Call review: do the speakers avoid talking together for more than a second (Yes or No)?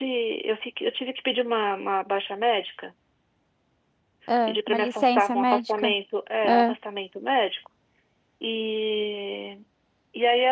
No